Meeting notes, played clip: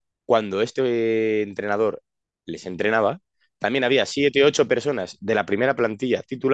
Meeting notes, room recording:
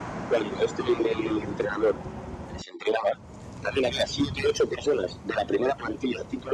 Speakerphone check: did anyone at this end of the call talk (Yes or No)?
No